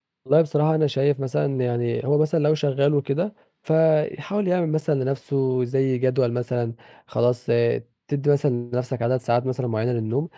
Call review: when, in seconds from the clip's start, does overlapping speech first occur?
none

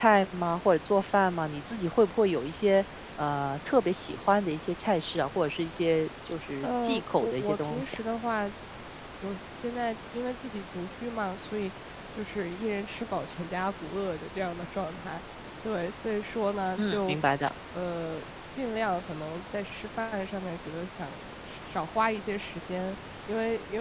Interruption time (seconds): 6.6 s

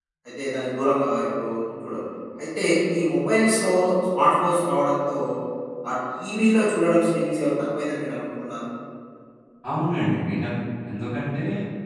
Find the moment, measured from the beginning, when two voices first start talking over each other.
none

